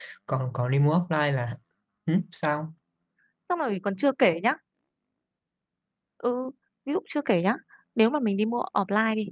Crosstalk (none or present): none